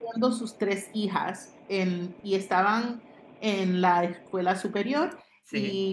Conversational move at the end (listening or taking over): listening